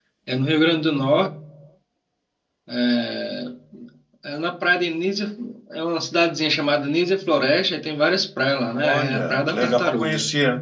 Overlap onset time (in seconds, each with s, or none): 8.7 s